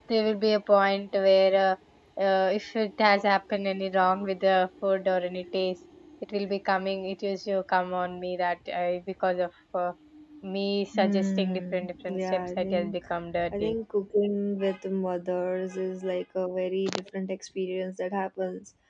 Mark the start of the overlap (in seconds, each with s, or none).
11.0 s